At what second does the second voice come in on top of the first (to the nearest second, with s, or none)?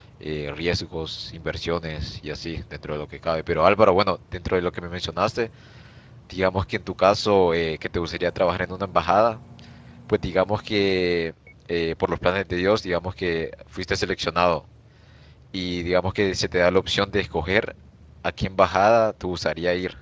none